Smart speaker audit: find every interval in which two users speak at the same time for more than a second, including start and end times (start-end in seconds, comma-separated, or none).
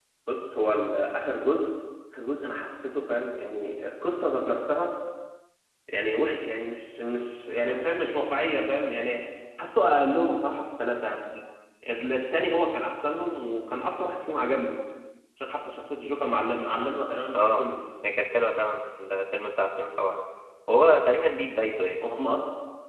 none